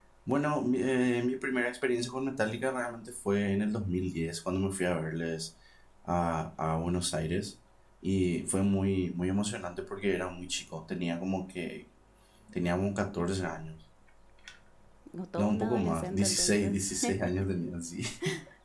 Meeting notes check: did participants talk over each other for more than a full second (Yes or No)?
Yes